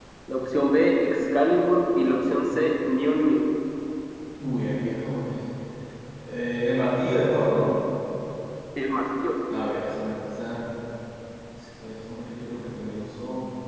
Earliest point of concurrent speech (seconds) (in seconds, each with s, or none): none